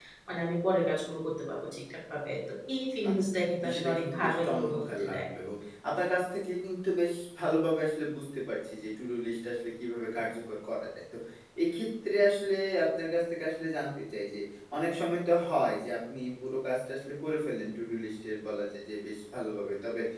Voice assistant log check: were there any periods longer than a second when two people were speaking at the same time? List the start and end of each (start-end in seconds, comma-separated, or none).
3.6-5.2